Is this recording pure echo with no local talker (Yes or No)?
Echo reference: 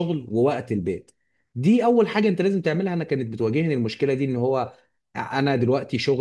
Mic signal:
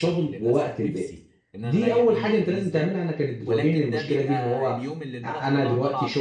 No